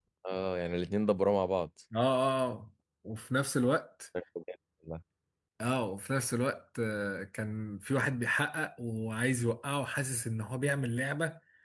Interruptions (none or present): none